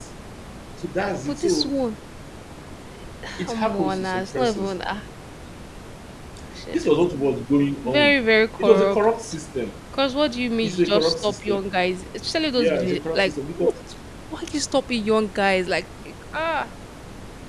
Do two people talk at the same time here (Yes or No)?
Yes